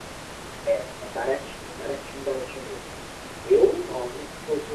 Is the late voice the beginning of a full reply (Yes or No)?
No